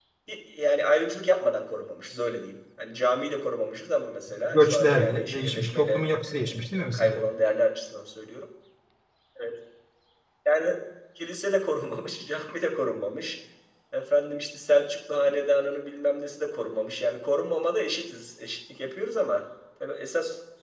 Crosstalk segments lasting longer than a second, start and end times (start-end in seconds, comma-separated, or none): 4.5-7.2